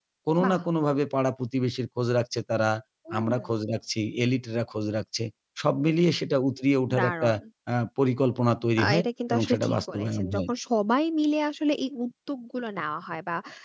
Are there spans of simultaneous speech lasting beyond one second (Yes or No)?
Yes